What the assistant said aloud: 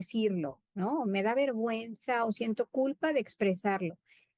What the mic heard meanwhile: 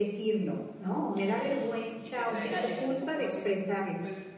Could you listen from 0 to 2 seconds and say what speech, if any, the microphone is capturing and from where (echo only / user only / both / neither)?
both